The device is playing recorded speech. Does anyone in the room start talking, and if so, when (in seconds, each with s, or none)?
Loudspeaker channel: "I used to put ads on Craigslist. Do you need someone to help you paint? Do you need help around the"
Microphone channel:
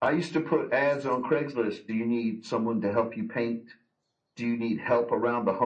none